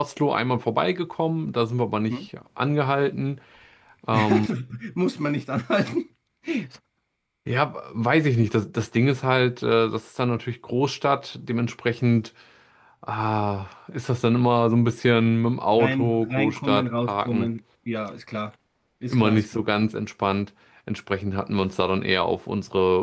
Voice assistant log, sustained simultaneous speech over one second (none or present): present